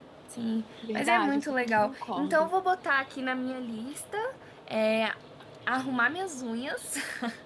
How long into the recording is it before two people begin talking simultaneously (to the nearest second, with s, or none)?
1 s